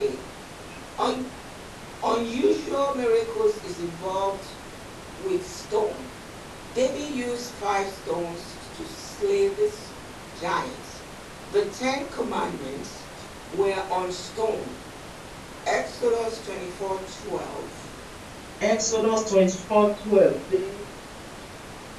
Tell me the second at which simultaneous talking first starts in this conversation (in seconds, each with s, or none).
none